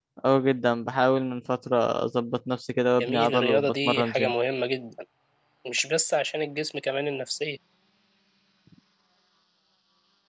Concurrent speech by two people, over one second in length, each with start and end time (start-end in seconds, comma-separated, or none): 3.0-4.3